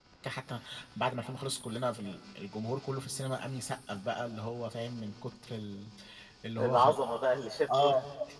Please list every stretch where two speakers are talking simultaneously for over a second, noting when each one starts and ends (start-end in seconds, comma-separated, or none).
none